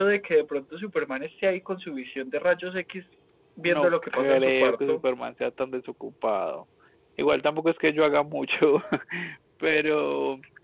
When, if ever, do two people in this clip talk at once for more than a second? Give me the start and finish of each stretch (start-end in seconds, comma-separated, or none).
3.6-5.0